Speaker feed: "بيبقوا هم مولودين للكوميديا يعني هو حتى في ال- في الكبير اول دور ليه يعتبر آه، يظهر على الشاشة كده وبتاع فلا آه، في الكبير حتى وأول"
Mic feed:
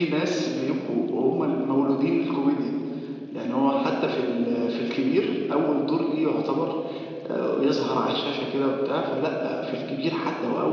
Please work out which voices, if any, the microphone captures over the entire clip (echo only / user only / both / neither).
echo only